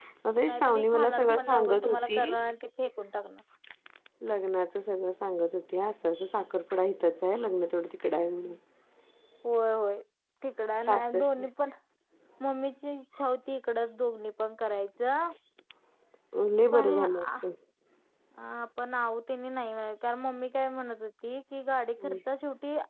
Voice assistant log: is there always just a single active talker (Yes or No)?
No